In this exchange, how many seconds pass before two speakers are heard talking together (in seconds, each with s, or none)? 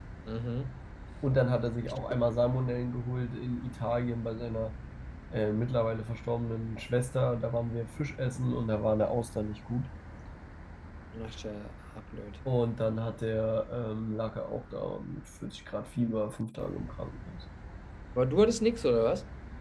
none